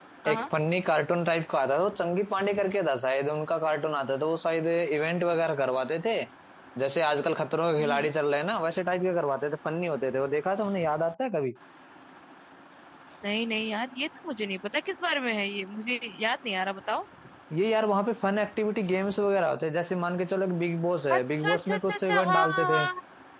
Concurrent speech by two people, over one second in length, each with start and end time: 21.1-22.9

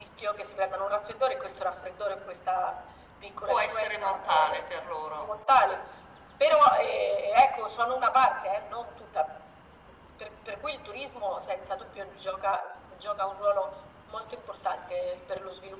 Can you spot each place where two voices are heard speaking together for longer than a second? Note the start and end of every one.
3.5-4.7

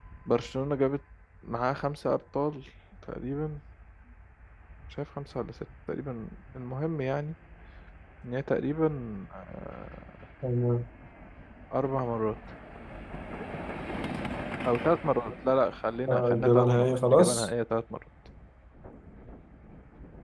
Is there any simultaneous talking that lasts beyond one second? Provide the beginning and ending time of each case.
16.1-17.5

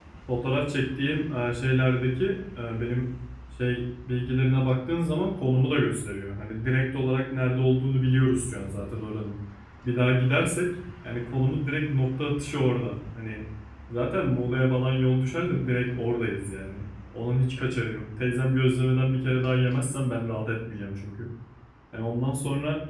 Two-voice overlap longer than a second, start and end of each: none

